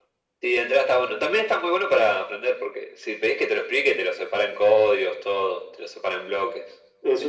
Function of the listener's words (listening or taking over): taking over